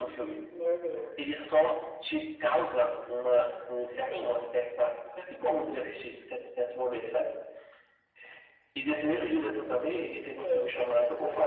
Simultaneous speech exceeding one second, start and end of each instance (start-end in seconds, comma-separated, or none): none